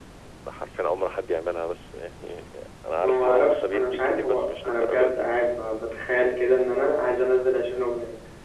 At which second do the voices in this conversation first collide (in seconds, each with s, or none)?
3.0 s